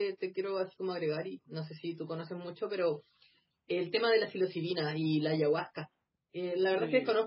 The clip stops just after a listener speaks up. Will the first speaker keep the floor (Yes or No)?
Yes